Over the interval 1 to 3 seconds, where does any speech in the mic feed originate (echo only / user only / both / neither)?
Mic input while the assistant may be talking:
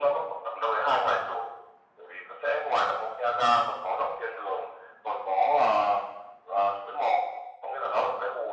echo only